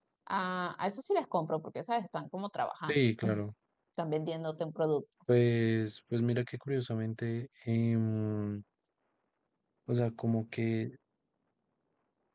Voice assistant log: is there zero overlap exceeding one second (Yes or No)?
Yes